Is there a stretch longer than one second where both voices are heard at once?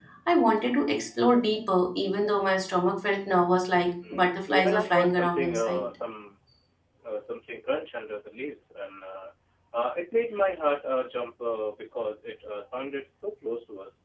Yes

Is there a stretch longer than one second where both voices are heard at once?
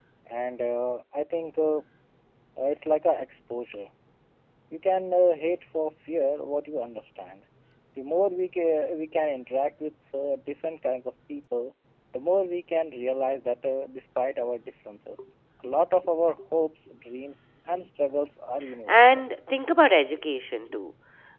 No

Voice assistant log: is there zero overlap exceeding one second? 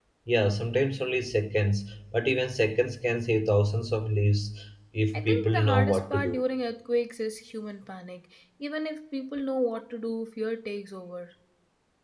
No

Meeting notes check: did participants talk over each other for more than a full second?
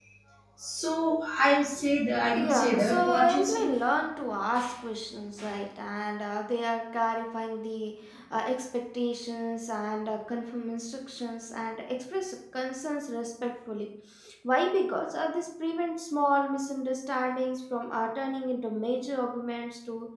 Yes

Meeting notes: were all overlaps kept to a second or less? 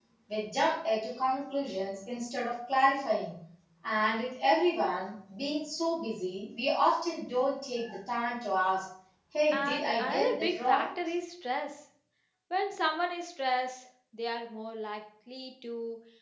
No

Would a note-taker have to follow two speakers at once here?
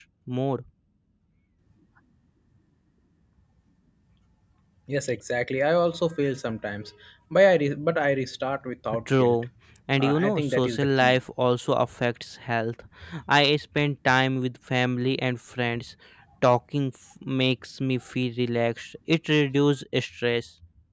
Yes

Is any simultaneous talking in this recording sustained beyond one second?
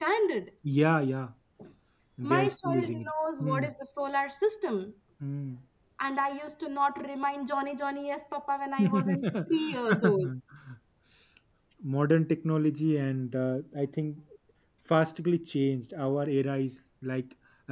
Yes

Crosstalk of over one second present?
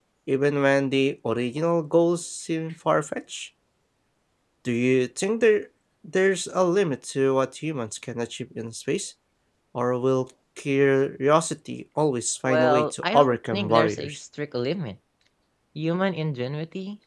Yes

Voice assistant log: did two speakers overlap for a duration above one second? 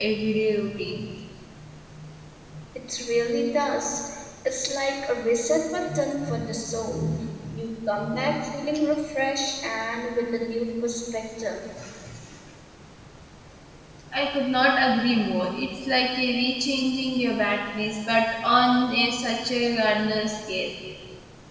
No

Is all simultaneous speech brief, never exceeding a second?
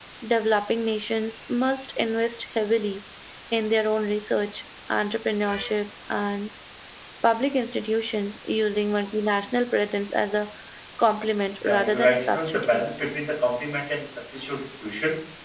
No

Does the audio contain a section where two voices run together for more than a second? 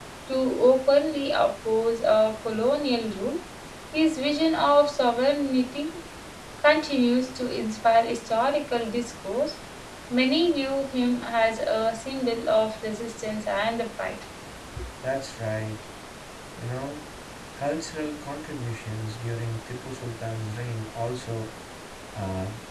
No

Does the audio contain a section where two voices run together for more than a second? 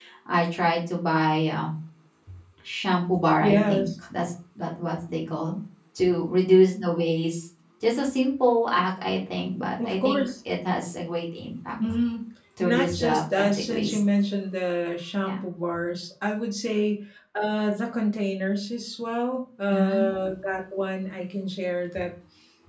Yes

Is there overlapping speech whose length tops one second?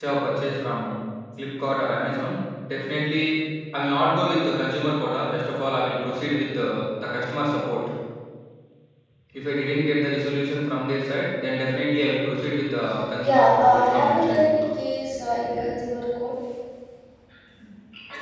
Yes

